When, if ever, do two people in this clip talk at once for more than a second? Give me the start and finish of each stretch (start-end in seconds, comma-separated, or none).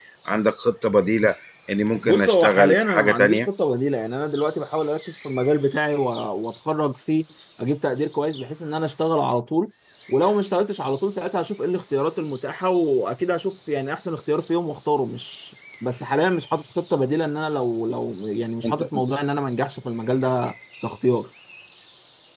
2.0-3.5